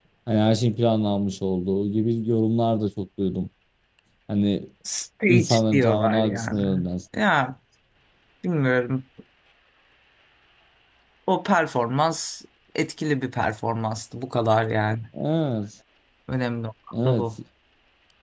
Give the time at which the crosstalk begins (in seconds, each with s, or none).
5.3 s